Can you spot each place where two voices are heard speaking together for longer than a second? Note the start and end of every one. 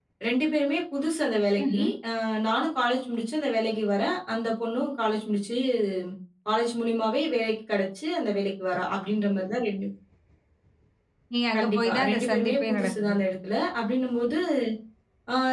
11.6-13.2

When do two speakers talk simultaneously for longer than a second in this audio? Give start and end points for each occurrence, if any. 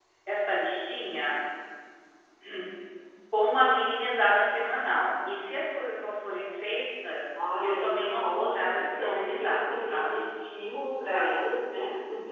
7.6-10.3

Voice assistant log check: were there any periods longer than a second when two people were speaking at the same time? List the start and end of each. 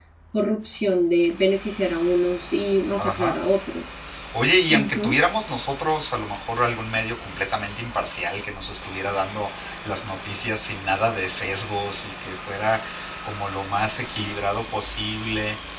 none

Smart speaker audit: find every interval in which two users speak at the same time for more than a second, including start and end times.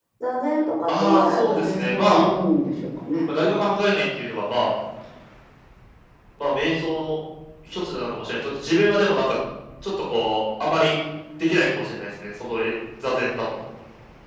0.9-2.3

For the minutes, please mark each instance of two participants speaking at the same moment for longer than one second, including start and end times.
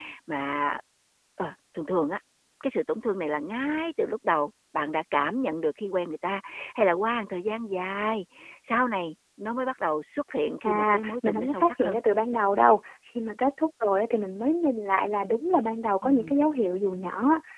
10.6-12.0

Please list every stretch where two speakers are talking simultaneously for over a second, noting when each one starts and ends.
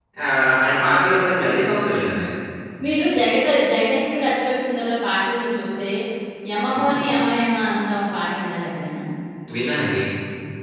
none

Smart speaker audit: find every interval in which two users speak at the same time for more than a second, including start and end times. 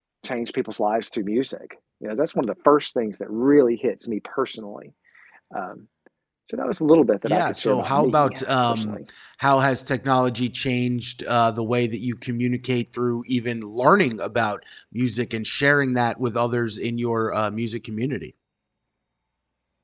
7.2-9.0

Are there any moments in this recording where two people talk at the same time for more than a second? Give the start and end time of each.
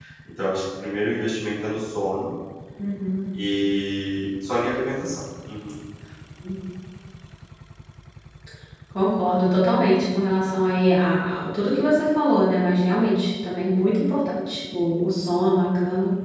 none

